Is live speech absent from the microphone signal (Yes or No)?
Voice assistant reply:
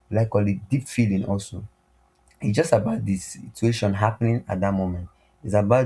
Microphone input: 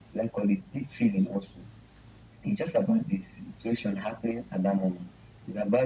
Yes